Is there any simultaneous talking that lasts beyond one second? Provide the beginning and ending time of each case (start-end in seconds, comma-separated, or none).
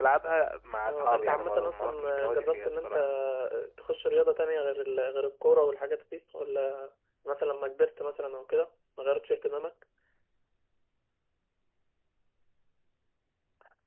0.9-3.0